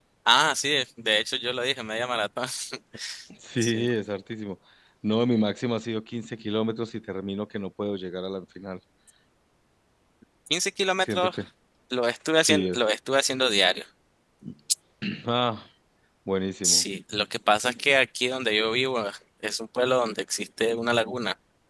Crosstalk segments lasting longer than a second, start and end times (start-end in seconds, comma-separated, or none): none